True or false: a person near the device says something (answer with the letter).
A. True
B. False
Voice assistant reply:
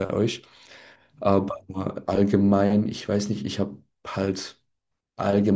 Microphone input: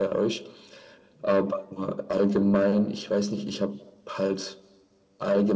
B